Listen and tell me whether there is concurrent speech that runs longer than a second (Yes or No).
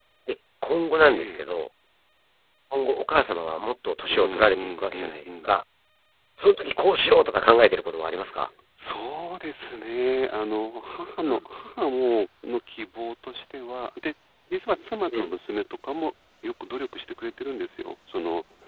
Yes